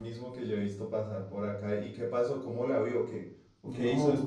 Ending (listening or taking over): taking over